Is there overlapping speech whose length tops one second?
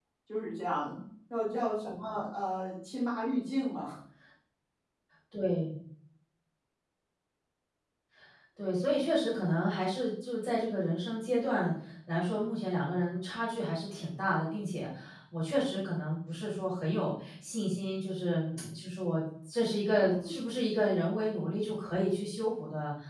No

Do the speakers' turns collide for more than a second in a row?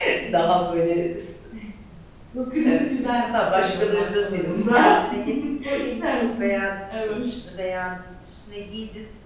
Yes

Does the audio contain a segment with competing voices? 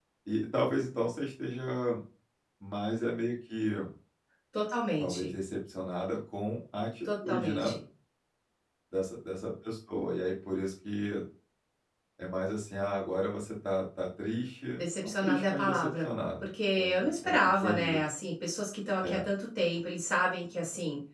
Yes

